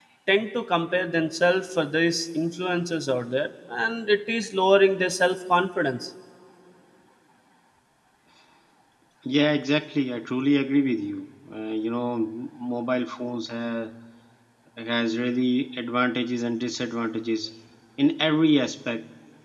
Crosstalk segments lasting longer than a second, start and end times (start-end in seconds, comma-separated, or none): none